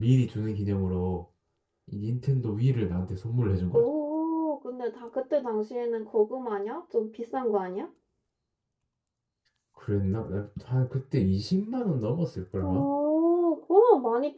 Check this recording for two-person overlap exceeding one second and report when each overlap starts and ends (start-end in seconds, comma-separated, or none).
none